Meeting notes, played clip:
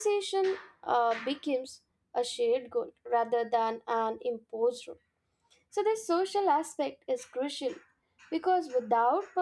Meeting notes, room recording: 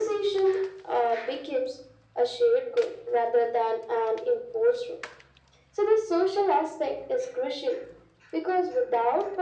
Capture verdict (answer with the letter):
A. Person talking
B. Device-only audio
B